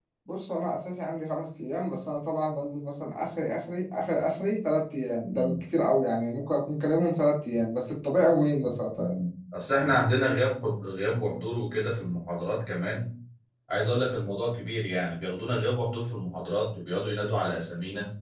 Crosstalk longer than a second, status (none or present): none